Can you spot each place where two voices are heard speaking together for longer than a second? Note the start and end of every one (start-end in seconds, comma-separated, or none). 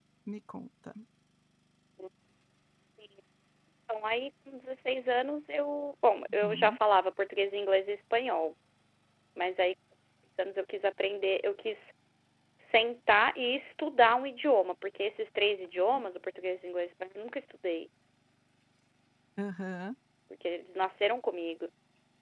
none